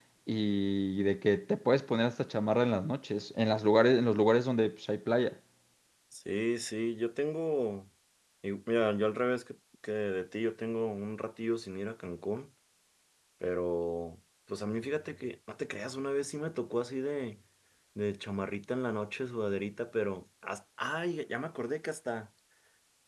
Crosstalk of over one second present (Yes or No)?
No